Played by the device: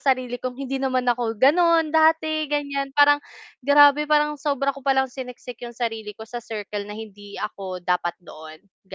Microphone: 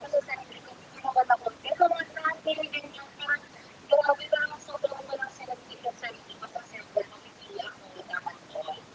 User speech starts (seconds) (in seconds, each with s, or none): none